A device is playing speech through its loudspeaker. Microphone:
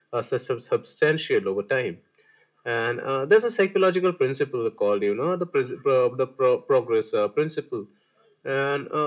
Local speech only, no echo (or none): none